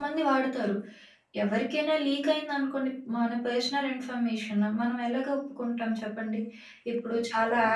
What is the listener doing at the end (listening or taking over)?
listening